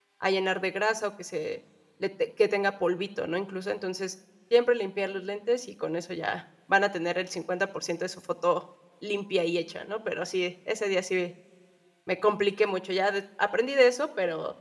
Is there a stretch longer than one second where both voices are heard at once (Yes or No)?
No